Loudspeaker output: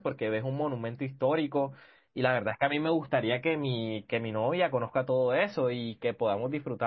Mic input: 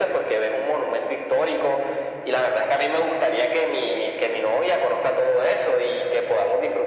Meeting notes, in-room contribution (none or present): none